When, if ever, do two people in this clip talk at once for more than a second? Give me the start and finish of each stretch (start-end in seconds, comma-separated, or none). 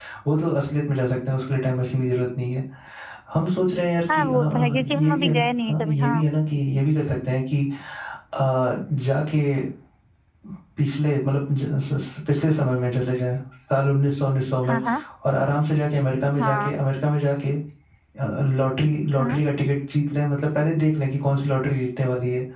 4.1-6.2